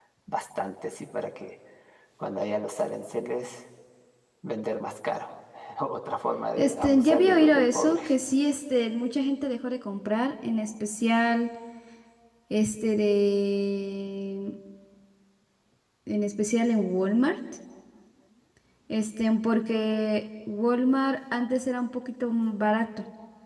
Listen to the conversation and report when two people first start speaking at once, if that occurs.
6.6 s

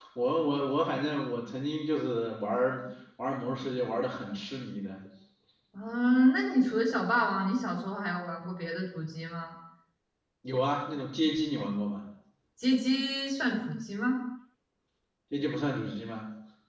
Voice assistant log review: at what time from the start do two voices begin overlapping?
none

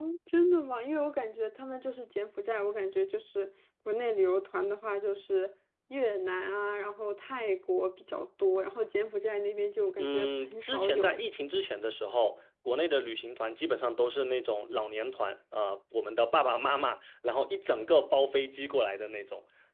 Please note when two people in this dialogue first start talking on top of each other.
10.0 s

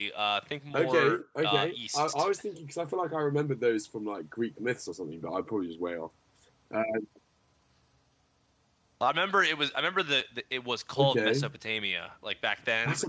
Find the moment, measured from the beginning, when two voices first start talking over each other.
0.7 s

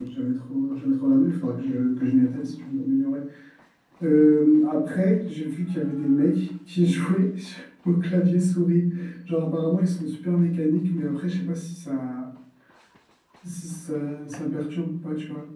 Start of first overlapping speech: none

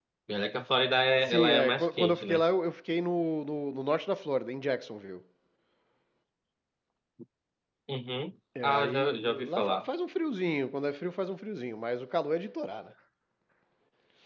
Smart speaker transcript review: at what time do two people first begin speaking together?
1.2 s

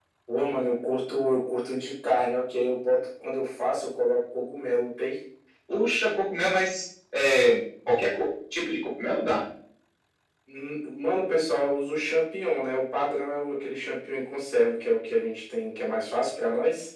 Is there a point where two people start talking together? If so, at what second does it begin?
none

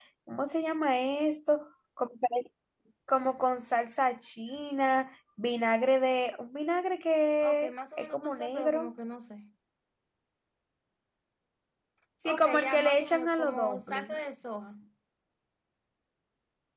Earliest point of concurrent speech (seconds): 7.4 s

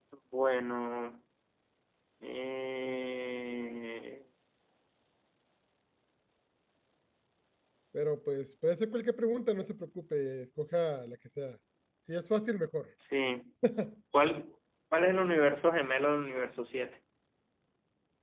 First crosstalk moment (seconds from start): none

